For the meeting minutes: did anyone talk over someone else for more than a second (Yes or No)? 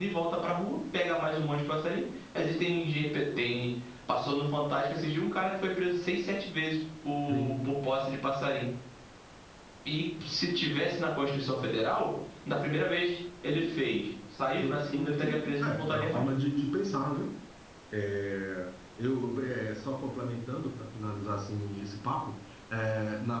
Yes